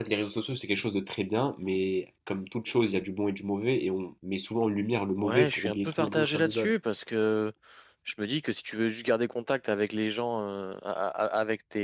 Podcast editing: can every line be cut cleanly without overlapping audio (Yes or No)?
No